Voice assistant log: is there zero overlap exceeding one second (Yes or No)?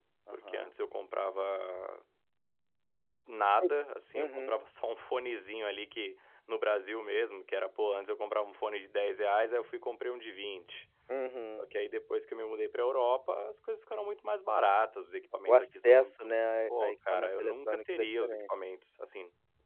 No